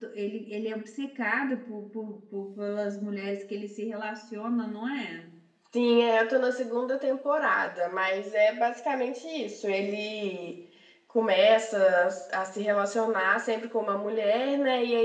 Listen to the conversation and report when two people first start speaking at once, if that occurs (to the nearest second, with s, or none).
none